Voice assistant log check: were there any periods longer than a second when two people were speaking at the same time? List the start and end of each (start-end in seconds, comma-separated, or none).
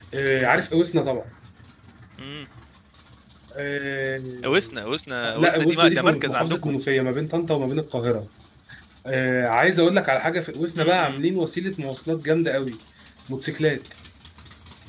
5.4-6.7